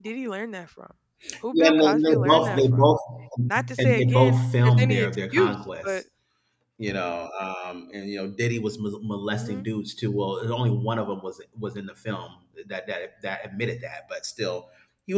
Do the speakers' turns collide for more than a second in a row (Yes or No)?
Yes